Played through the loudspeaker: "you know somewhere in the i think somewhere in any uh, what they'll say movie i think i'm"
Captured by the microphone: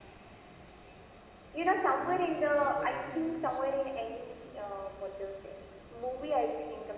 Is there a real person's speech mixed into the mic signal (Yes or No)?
Yes